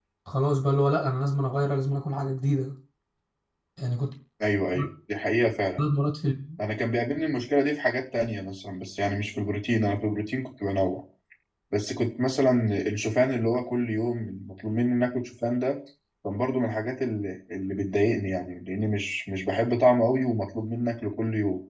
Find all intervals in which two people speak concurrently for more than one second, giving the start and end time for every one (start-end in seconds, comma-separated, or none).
none